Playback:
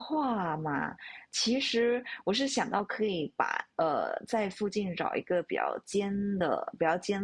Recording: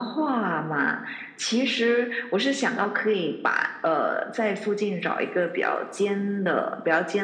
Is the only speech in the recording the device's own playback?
Yes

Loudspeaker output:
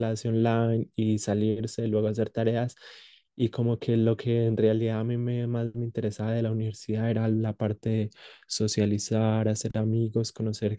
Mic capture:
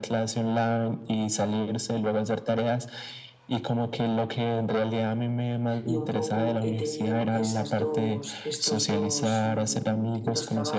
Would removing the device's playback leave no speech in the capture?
No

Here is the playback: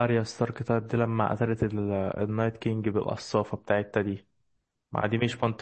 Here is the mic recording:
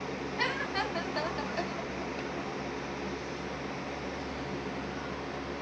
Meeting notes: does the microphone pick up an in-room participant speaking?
No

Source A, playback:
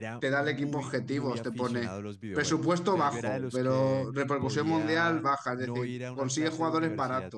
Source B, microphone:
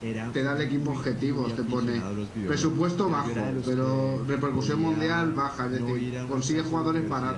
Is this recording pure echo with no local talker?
Yes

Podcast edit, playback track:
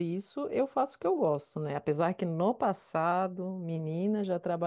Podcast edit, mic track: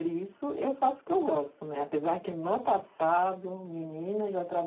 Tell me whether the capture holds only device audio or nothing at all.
Yes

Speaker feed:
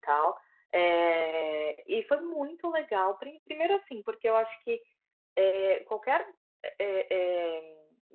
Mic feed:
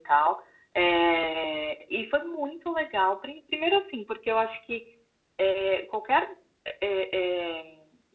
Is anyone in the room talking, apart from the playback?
No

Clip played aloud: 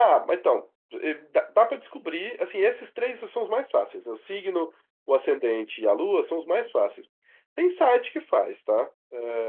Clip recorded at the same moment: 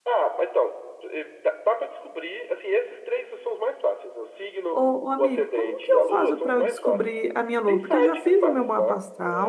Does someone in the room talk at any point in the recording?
Yes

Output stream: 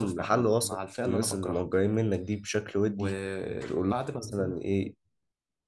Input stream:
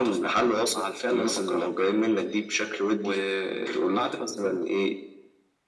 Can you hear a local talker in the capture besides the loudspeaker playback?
No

